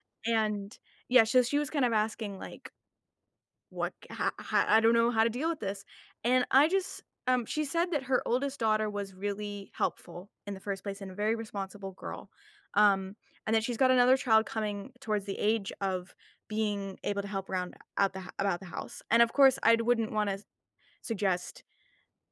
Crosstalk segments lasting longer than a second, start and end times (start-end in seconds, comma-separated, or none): none